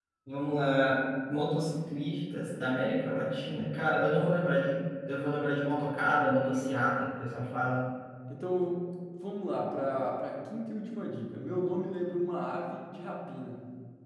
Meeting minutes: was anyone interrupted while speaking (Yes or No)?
No